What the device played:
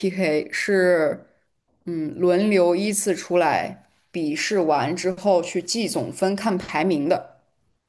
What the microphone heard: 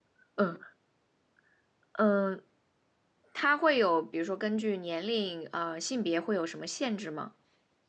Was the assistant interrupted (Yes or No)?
Yes